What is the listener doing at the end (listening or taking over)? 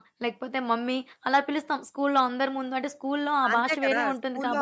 taking over